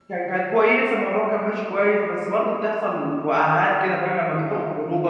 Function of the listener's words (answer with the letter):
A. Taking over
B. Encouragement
A